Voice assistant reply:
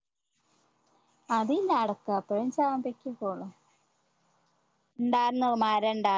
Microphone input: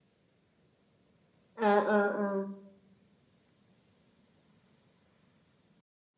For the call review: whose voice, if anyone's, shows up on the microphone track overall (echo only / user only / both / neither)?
user only